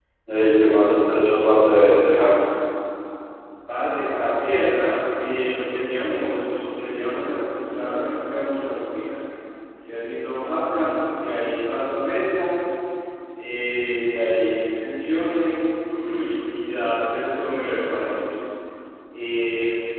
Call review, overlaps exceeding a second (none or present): none